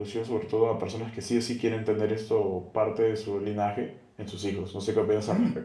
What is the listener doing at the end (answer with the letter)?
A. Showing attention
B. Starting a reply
B